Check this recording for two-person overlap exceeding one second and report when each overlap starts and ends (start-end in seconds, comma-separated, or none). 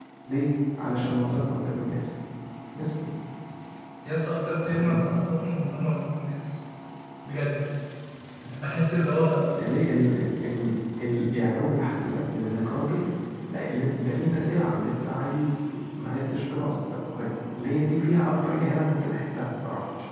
none